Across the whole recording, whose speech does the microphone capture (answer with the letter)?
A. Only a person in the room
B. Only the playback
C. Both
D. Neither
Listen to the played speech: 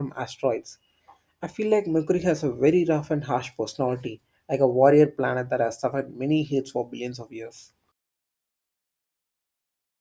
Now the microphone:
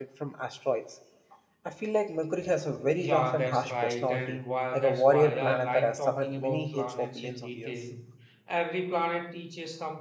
C